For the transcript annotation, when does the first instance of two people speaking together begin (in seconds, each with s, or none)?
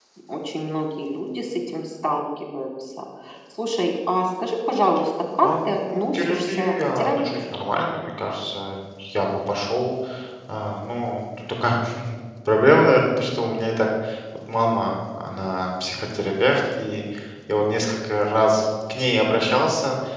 5.4 s